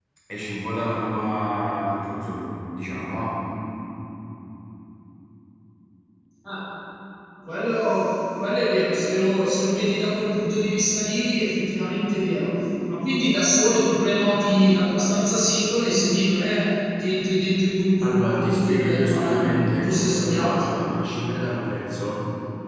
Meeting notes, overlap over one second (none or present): present